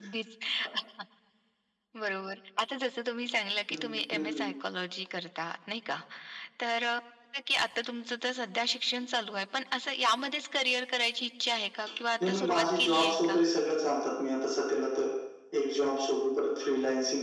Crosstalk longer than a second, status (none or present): present